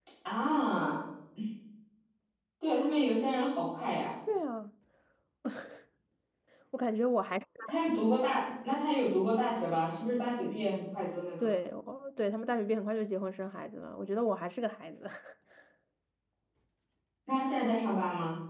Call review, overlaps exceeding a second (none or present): none